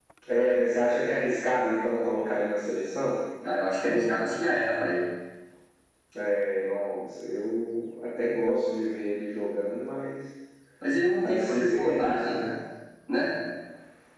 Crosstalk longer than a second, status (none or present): present